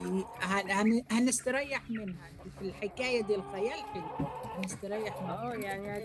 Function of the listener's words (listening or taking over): taking over